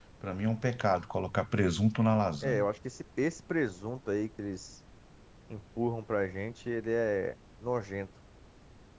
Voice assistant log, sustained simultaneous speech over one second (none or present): none